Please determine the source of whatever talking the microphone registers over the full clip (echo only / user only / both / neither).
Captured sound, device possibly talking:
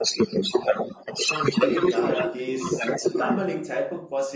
both